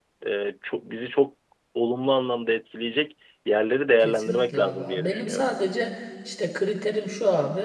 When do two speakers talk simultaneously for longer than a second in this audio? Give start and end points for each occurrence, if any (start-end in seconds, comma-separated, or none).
4.0-5.5